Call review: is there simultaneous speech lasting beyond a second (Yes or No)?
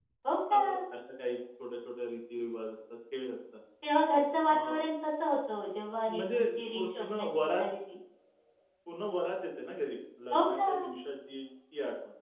Yes